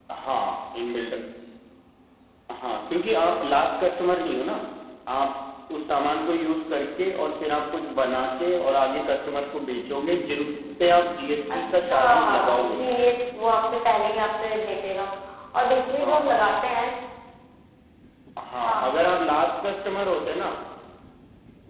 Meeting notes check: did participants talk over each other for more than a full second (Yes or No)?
Yes